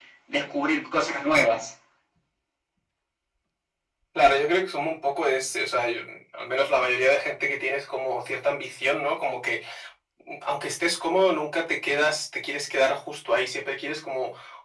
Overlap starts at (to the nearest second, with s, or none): none